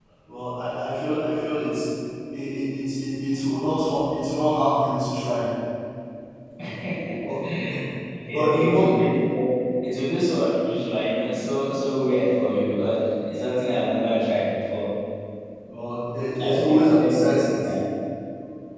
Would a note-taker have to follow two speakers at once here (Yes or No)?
Yes